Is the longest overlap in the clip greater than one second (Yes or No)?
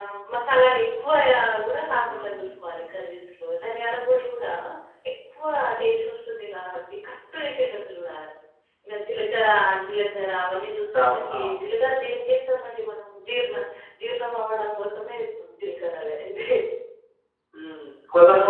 No